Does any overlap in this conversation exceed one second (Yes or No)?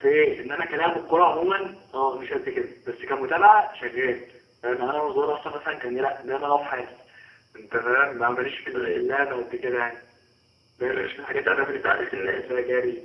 Yes